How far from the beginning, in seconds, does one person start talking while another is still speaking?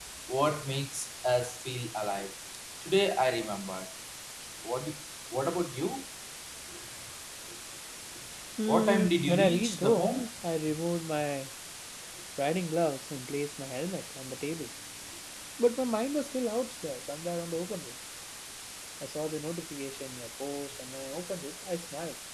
8.7 s

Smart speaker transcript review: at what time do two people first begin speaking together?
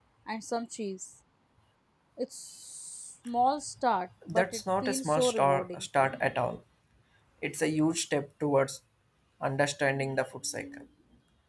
4.2 s

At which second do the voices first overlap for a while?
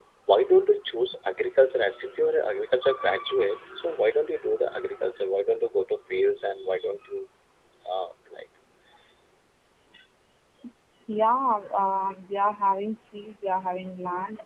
none

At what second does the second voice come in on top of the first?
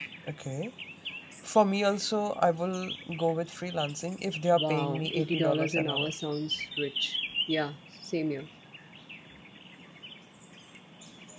4.5 s

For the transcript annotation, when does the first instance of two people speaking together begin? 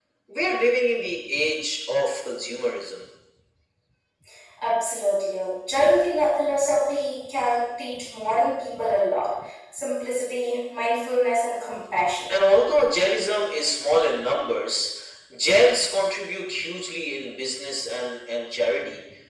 none

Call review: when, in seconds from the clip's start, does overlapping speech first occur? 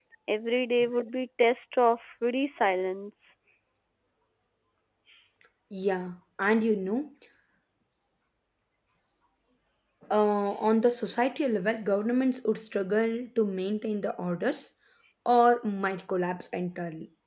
none

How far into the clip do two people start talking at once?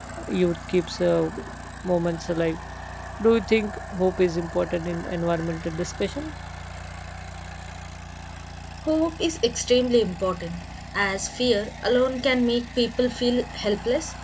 none

